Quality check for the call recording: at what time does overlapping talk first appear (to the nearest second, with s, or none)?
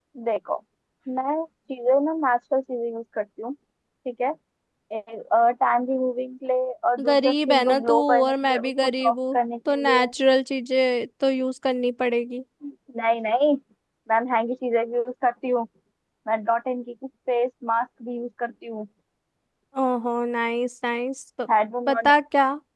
7 s